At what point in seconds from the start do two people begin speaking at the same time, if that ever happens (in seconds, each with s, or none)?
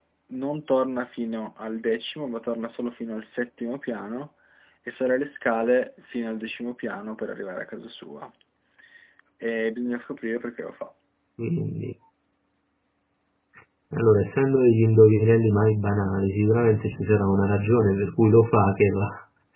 none